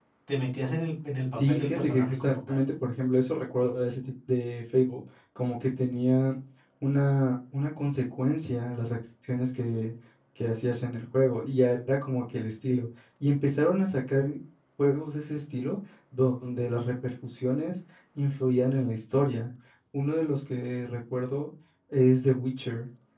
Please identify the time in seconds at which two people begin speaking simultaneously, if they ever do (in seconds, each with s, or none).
1.4 s